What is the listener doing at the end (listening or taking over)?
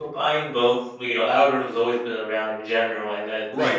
taking over